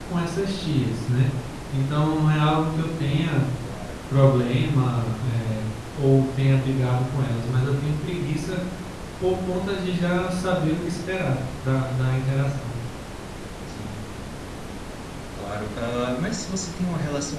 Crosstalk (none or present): none